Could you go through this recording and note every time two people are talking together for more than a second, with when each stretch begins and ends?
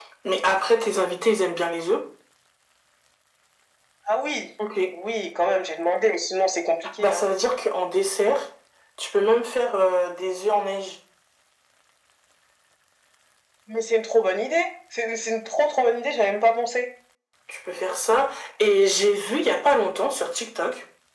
none

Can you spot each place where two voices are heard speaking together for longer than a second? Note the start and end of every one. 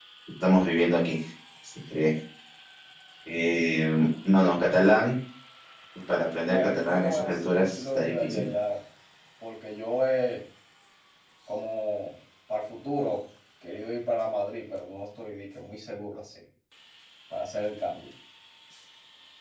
6.5-8.5

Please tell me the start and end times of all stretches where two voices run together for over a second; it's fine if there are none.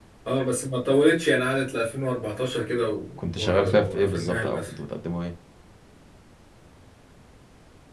3.3-4.7

